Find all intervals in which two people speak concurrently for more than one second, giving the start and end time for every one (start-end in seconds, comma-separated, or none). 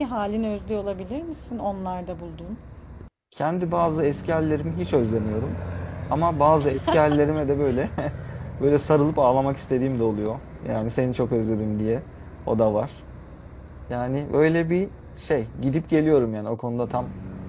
none